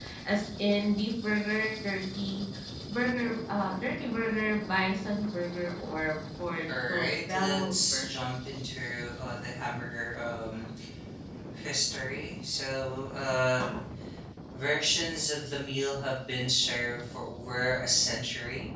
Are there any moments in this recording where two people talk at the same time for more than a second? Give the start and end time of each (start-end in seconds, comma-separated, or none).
6.7-8.1